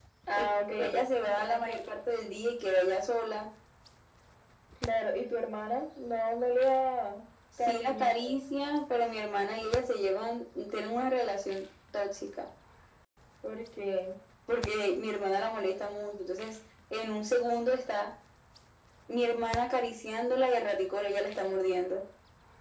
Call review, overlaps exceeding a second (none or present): present